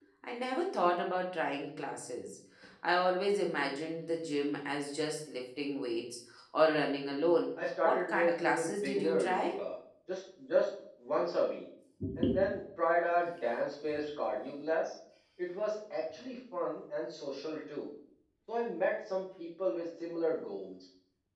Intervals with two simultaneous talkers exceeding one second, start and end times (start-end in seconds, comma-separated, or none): 7.8-9.6